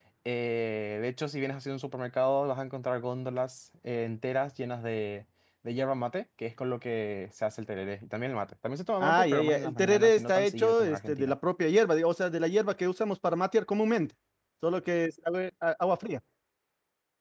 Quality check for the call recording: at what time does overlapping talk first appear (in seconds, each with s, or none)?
9.0 s